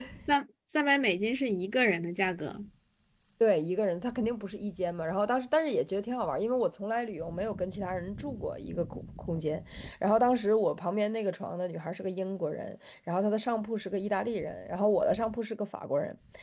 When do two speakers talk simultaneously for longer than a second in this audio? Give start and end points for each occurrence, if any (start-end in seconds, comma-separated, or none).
none